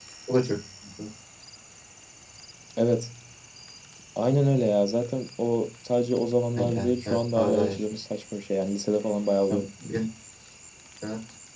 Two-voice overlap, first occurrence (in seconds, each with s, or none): 6.6 s